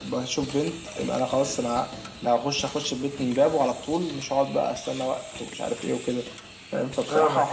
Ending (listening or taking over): taking over